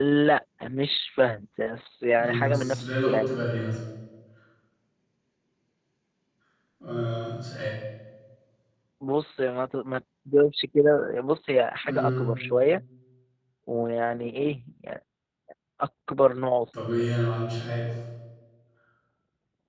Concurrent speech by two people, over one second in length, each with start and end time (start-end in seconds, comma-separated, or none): 2.1-3.3